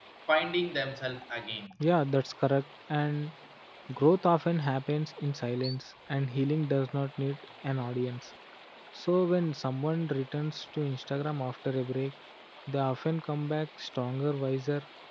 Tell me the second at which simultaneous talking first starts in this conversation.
none

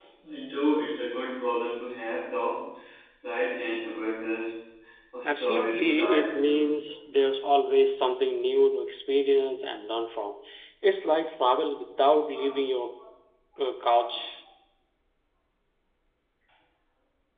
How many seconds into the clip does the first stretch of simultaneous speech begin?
5 s

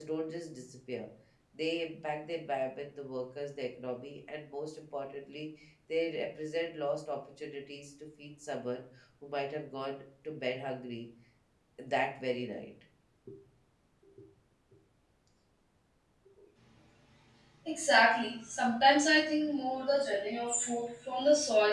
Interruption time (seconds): none

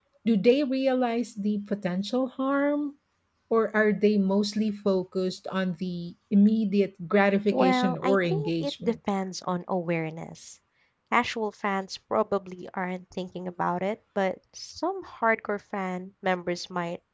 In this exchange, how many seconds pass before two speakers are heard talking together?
8 s

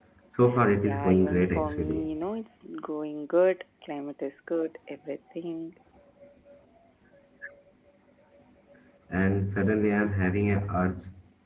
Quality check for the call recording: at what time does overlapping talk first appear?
1 s

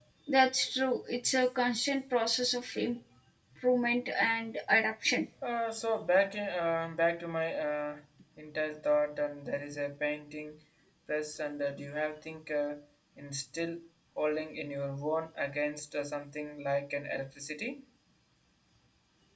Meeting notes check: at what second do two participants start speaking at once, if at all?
none

